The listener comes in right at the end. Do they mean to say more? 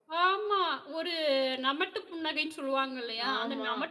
No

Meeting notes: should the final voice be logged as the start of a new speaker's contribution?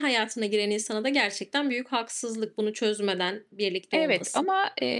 Yes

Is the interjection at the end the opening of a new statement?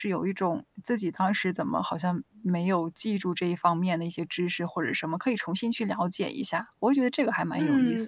Yes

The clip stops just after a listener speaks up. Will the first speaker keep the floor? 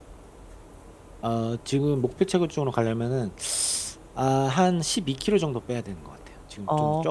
No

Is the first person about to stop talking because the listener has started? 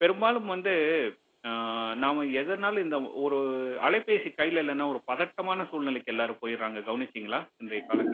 Yes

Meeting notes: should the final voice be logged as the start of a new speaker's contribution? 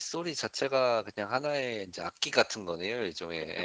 Yes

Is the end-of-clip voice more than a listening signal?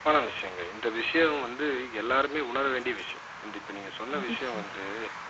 No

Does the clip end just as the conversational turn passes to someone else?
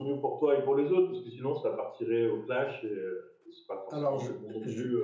Yes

